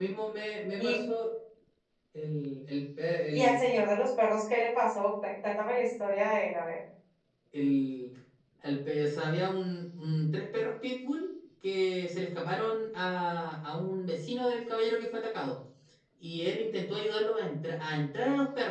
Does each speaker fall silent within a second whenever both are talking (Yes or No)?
Yes